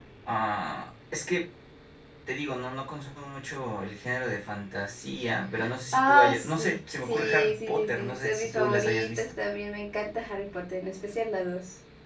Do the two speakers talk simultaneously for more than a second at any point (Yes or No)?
Yes